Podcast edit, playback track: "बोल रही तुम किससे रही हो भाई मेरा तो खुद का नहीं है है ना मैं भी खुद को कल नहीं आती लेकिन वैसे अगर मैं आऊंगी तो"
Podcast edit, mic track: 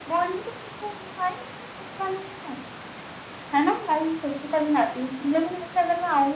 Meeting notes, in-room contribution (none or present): none